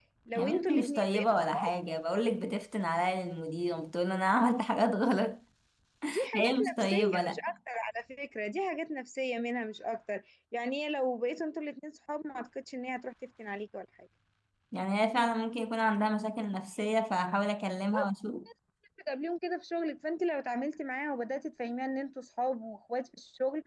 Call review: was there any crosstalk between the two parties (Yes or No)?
Yes